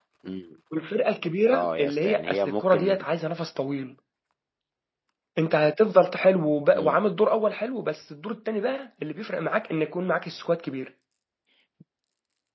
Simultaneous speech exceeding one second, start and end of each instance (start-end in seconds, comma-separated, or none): 1.5-3.1